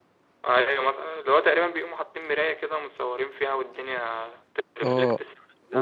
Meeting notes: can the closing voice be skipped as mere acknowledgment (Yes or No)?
No